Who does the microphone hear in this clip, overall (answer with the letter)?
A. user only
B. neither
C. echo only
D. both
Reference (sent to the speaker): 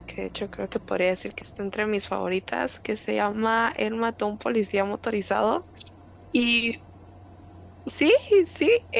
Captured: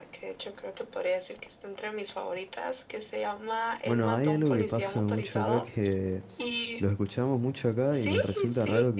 D